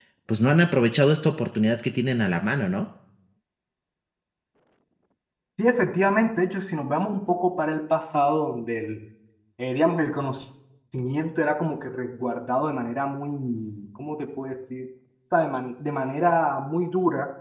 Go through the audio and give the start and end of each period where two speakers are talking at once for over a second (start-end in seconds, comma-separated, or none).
none